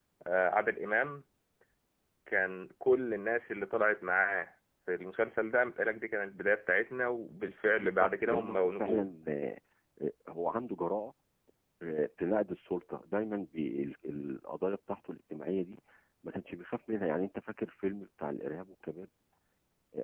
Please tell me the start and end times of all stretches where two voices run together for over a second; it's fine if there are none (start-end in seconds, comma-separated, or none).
7.8-9.1